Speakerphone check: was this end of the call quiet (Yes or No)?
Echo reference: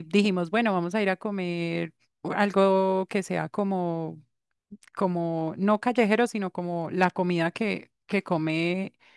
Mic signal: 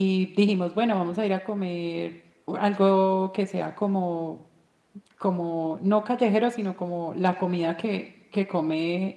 Yes